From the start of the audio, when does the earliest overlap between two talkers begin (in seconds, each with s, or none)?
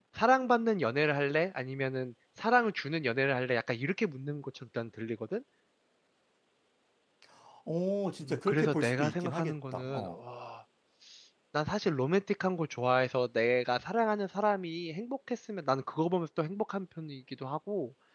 8.2 s